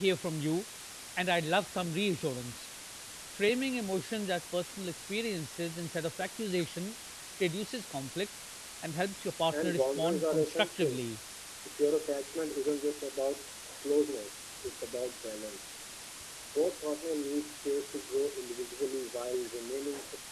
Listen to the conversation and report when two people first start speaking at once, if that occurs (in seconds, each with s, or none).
9.5 s